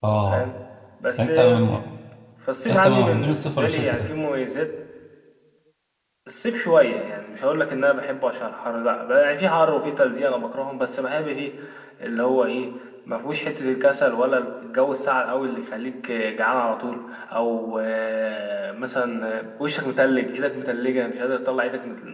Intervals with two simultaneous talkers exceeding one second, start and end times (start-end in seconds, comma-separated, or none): 2.7-4.1